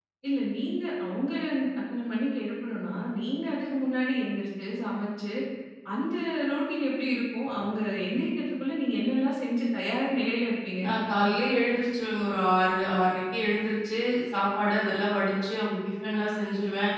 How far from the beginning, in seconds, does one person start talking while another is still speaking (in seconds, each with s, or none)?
none